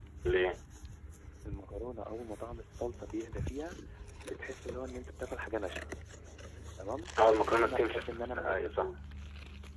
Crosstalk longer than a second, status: present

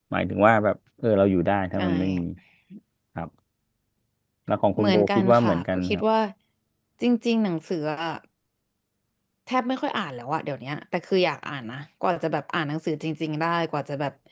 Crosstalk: present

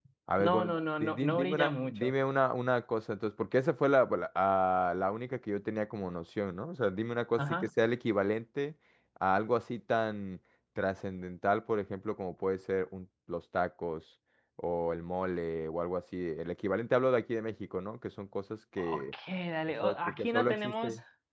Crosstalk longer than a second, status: present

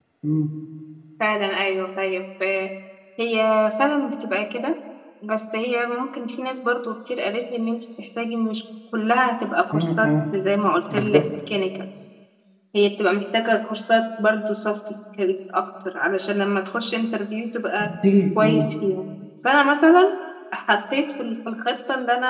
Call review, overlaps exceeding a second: none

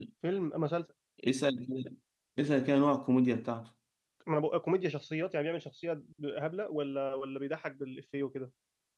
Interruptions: none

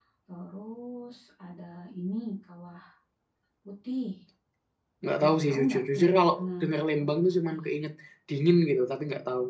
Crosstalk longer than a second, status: present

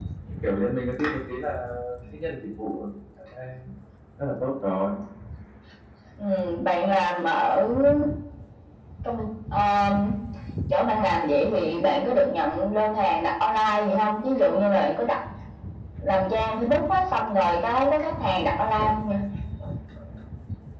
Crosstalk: none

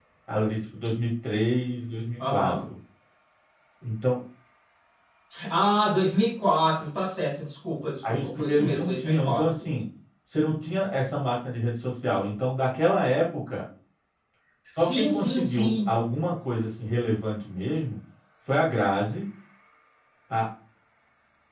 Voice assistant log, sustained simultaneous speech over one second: present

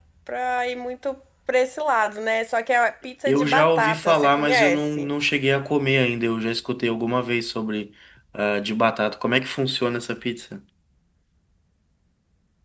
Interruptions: present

